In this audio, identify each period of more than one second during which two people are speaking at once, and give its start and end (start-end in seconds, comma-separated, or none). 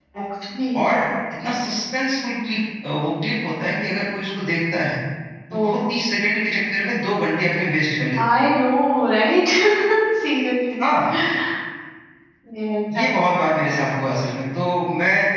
none